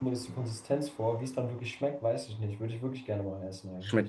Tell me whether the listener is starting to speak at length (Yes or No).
Yes